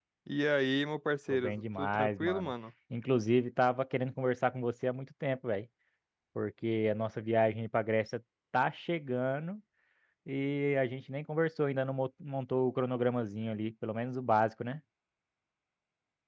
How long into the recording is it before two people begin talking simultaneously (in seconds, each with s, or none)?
1.3 s